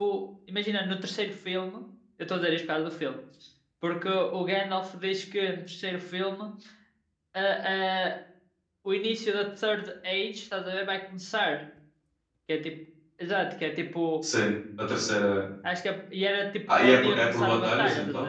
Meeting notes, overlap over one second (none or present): present